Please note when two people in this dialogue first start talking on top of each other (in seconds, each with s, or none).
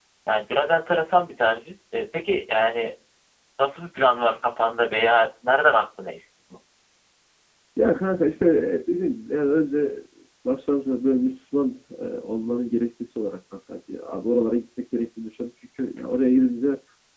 none